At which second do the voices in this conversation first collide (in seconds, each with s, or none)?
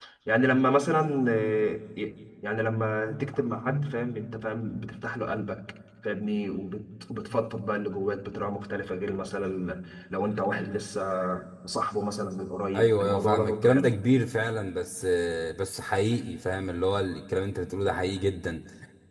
12.7 s